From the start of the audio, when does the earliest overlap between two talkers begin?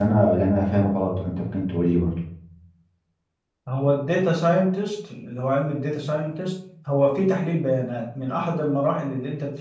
none

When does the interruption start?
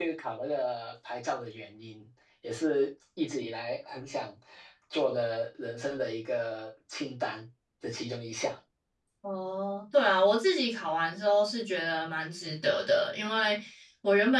none

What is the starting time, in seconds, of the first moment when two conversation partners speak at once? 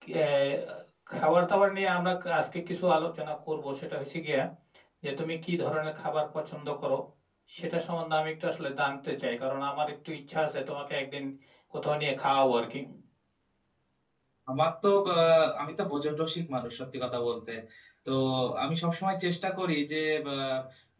none

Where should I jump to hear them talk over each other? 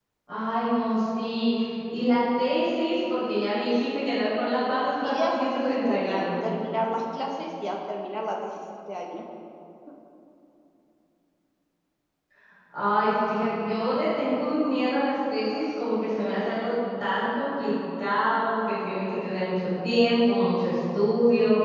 5.0 s

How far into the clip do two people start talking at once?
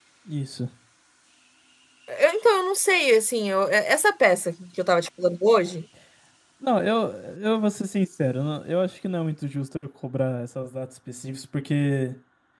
none

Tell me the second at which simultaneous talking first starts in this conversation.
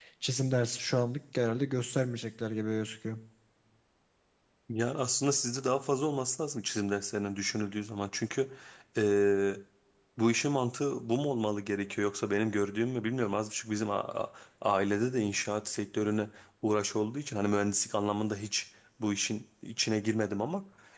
none

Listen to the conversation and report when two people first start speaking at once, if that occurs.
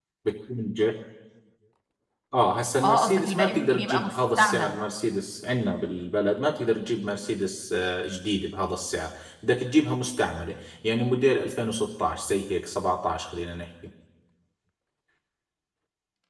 2.8 s

